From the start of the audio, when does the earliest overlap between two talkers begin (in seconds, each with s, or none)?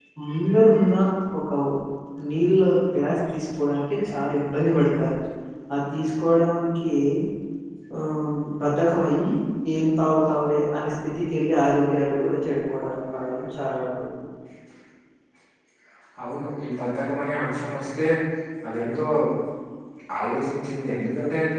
none